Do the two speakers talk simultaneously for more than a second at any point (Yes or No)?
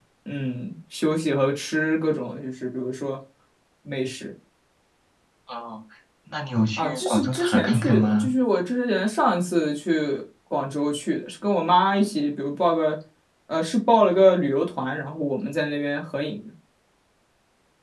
Yes